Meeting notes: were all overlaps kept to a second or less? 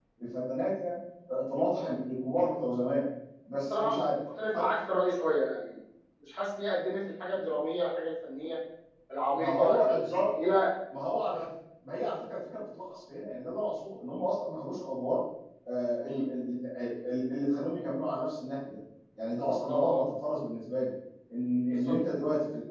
No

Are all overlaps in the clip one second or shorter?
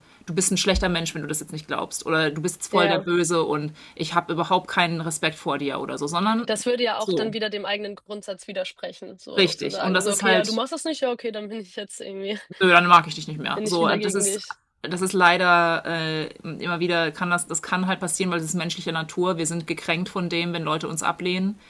No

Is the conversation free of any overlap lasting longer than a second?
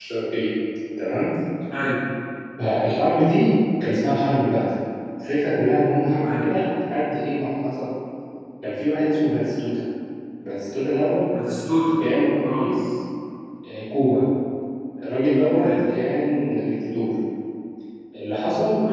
Yes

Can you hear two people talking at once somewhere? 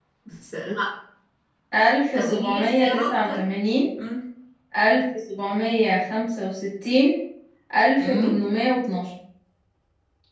Yes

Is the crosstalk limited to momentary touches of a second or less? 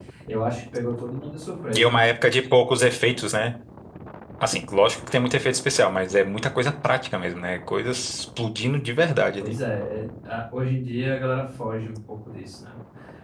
Yes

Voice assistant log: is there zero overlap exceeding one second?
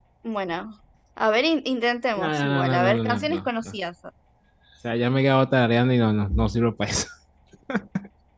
No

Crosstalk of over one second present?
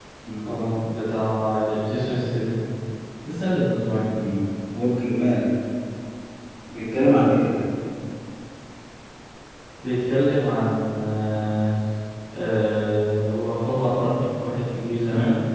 No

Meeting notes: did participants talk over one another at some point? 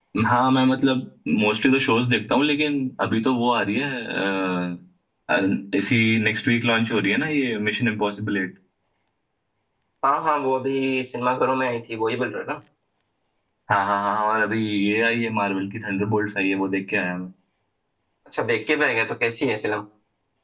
No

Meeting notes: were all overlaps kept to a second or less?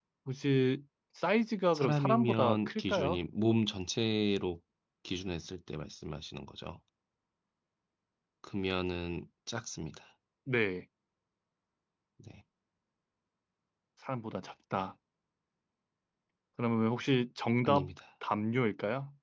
No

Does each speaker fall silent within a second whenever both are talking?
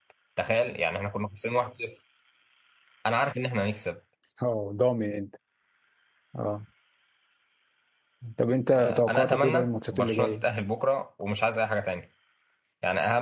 No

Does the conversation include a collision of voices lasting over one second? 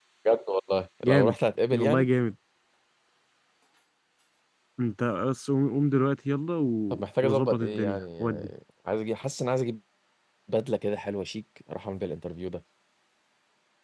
Yes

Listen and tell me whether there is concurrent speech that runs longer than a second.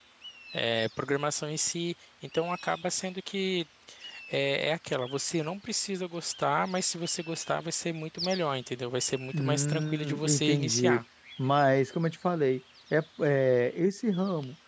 Yes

